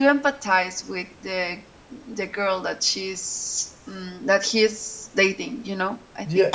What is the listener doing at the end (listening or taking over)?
taking over